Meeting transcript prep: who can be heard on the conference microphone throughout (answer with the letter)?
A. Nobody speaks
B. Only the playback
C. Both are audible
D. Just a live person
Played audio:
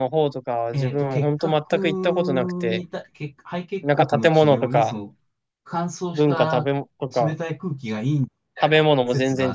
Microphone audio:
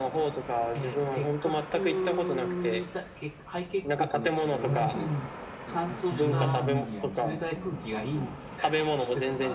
C